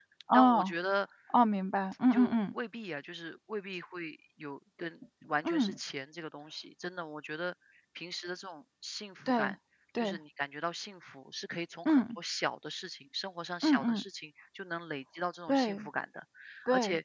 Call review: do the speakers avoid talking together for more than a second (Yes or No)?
Yes